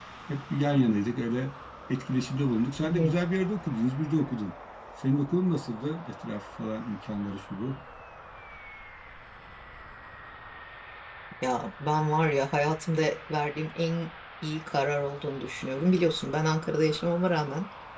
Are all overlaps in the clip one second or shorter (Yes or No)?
Yes